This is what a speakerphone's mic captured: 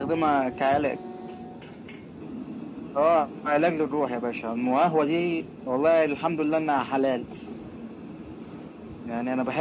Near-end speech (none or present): none